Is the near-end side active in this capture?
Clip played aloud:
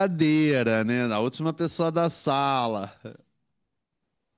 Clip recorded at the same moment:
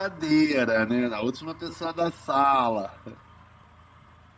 No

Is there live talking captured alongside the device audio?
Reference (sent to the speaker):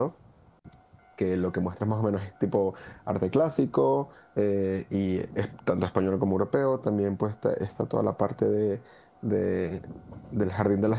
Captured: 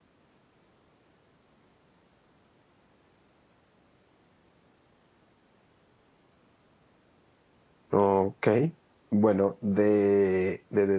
Yes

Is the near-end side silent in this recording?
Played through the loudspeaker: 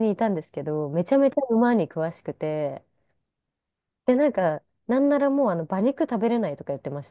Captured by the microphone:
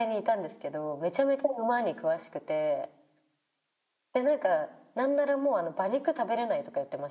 Yes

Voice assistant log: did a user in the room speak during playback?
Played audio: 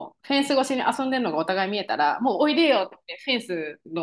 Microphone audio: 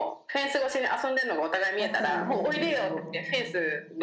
Yes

